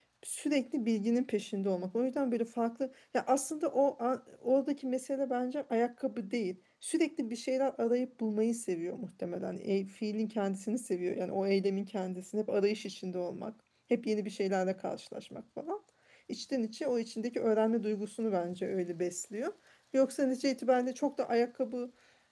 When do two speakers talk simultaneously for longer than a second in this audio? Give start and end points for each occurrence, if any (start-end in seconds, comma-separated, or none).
none